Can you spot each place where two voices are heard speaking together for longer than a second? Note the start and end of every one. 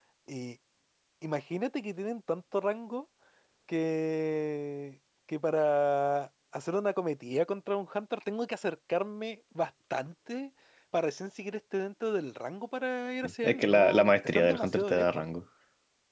13.2-15.2

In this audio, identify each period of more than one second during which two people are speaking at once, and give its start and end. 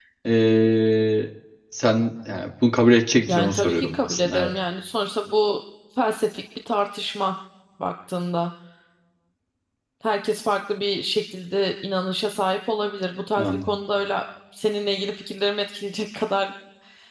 3.3-4.5

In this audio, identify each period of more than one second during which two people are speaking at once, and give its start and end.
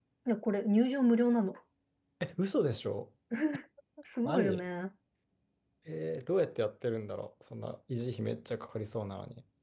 none

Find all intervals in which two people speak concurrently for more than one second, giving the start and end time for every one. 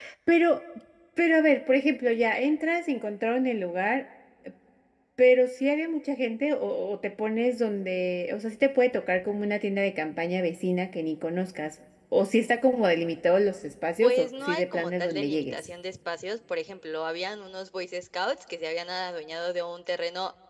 14.0-15.6

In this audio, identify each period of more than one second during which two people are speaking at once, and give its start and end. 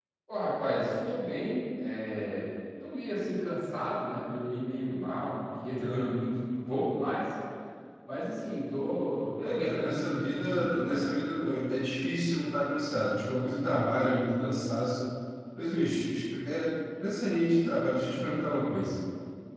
9.4-11.0

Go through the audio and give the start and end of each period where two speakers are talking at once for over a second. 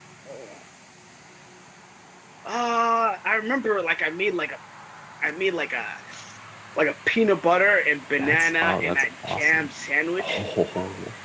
8.2-9.7

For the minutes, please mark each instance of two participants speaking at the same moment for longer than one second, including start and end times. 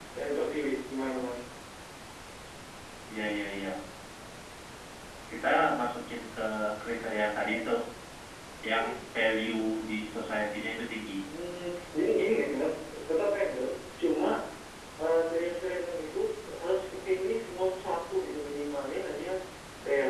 none

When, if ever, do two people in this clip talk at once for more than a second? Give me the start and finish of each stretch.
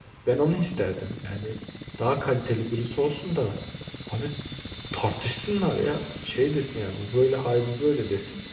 none

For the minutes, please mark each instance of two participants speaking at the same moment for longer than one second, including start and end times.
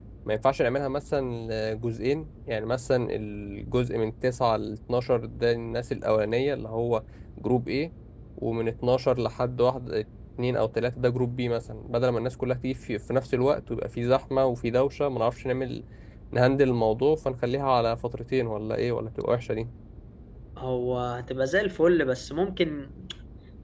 none

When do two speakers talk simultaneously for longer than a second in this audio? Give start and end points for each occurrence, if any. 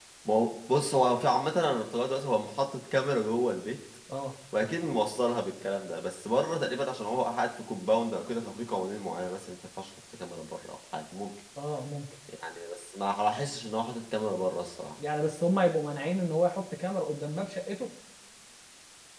none

